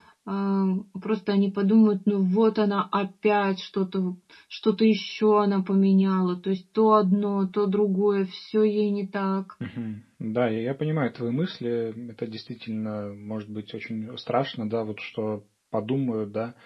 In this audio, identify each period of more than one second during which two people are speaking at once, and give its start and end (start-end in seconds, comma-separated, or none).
none